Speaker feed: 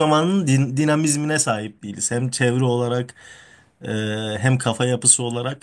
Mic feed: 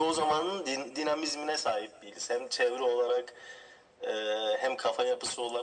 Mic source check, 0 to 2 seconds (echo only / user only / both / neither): echo only